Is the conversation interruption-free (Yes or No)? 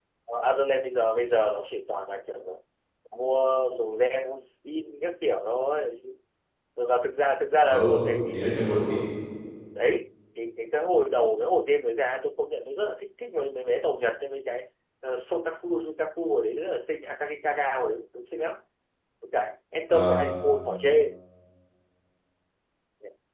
No